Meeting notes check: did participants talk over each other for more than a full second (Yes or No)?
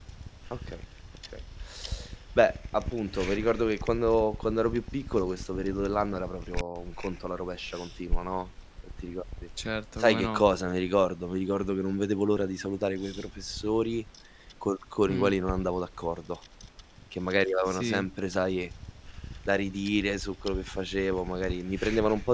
No